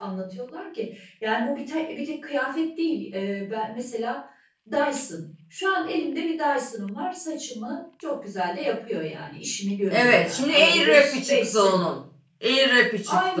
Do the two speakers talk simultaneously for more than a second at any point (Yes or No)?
Yes